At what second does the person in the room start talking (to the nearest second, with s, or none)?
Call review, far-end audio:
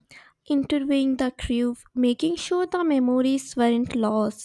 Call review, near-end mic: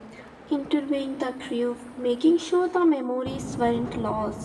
none